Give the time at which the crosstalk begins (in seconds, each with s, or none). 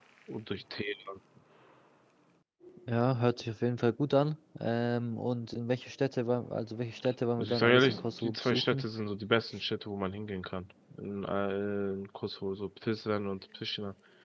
7.4 s